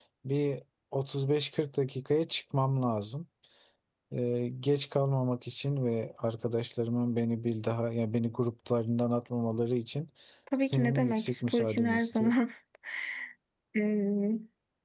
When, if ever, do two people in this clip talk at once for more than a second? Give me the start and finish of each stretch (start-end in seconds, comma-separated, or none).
10.6-12.3